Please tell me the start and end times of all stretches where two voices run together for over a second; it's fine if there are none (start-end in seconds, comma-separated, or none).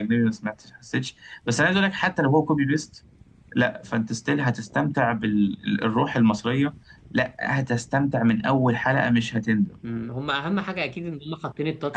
none